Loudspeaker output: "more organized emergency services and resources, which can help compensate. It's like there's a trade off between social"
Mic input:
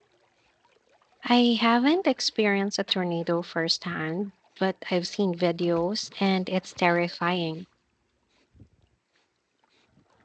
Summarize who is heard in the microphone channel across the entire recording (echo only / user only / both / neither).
user only